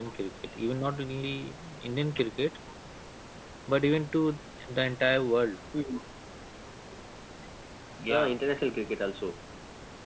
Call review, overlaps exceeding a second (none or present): none